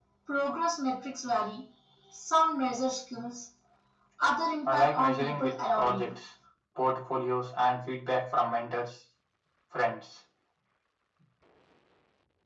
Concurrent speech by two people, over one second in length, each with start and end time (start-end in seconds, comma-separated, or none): 4.6-6.1